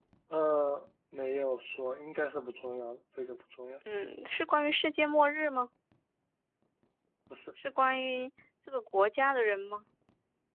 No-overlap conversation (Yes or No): Yes